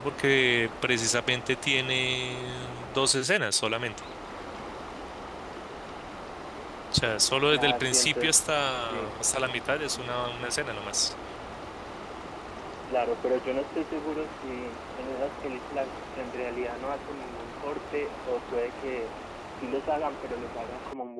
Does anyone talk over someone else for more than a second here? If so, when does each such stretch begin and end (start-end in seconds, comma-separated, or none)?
7.5-9.1